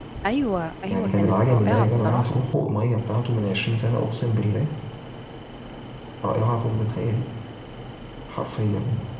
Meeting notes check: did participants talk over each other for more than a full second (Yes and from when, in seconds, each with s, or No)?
Yes, from 0.9 s